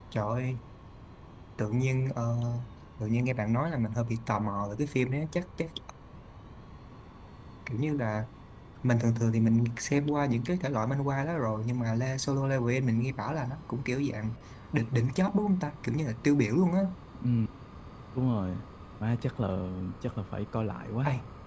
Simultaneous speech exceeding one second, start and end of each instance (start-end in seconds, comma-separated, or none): none